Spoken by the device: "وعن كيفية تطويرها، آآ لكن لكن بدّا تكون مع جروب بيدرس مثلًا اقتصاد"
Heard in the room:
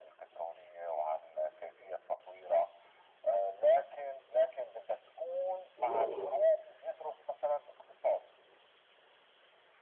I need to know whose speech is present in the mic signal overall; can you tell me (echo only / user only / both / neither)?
both